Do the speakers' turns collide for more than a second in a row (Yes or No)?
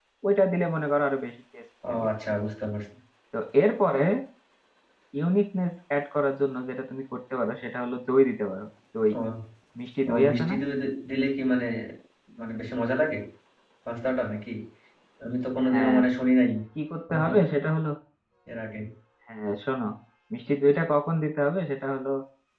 No